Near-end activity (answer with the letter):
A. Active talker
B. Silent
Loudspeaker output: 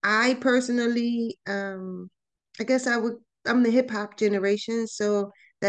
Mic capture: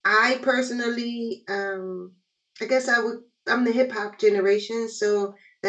B